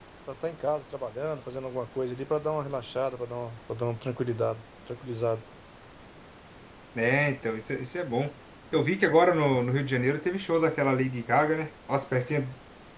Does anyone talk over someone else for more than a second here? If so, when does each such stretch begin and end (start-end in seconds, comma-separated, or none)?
none